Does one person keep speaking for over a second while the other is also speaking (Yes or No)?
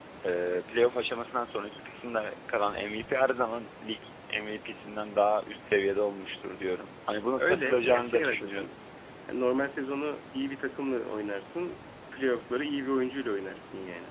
Yes